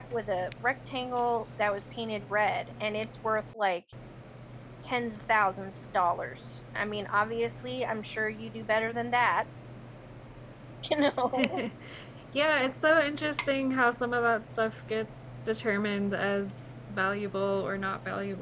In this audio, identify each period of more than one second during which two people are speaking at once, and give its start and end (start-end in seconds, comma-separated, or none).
none